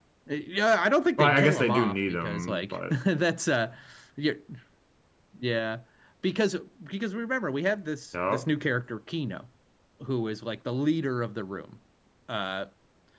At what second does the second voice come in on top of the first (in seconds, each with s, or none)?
1.2 s